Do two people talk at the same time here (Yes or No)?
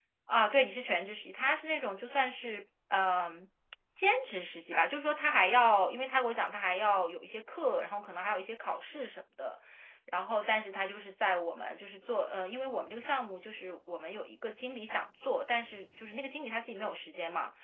No